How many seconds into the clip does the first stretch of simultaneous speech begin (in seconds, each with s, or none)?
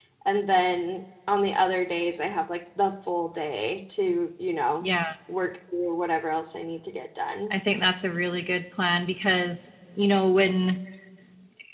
none